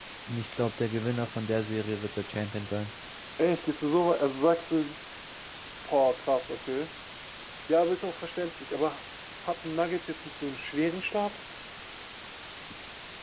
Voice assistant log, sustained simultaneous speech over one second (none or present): none